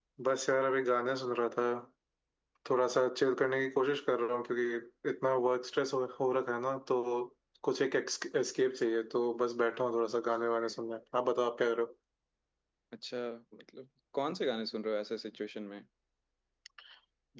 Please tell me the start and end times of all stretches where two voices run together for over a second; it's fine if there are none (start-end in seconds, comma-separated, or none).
none